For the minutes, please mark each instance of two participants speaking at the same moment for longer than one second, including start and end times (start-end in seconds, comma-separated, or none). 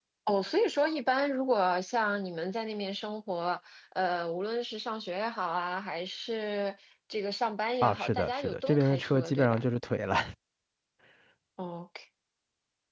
7.8-9.6